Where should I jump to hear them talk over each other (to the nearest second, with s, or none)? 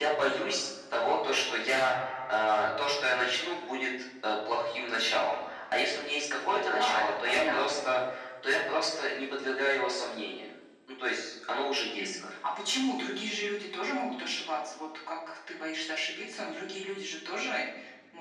7 s